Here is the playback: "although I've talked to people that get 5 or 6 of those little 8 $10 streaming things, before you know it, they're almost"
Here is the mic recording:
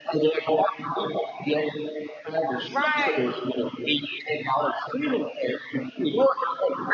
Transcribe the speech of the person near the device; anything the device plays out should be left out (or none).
Right.